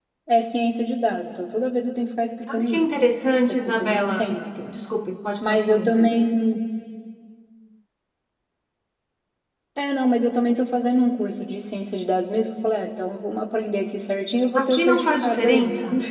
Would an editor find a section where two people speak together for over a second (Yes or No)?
Yes